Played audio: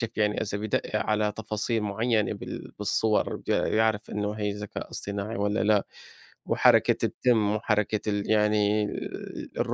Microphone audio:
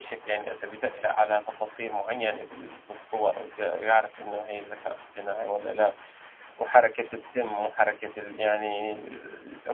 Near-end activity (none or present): none